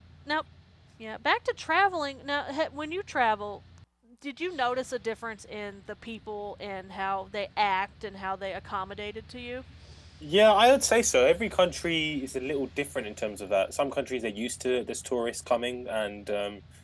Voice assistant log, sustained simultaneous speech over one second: none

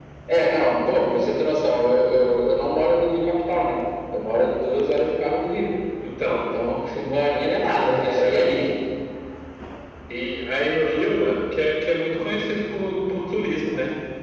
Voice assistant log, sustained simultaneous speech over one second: none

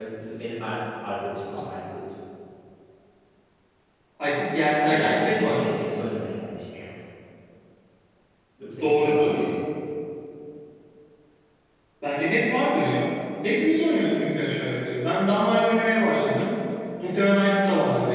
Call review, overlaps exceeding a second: present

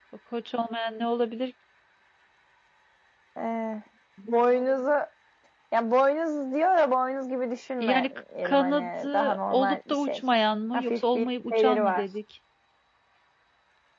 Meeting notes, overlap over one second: present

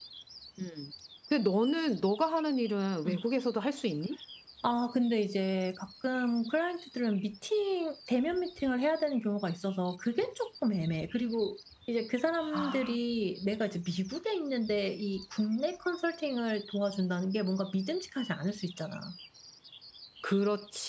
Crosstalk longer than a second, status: none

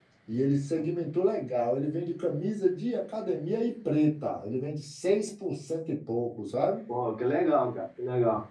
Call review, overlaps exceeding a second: none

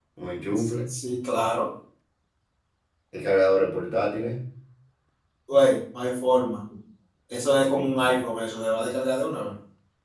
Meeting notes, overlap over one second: none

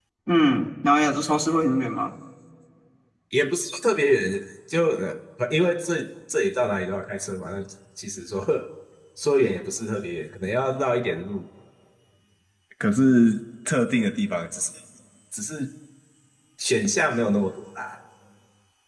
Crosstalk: none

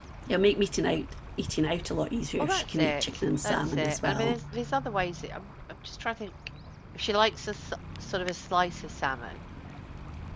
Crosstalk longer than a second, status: present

